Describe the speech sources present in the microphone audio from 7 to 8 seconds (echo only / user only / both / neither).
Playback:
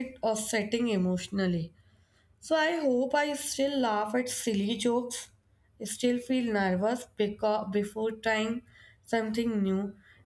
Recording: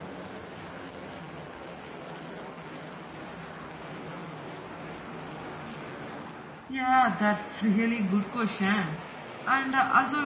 user only